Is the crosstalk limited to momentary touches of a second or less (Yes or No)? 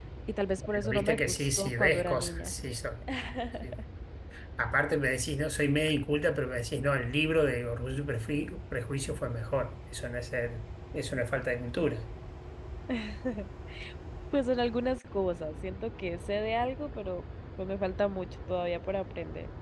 No